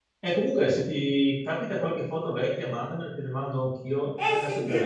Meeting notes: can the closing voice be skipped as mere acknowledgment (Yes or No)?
No